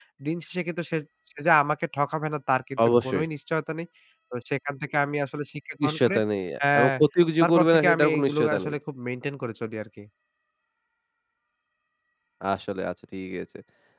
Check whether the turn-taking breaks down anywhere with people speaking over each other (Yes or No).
Yes